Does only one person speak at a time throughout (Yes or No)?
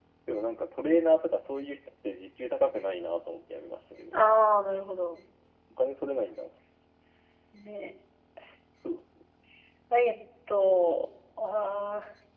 Yes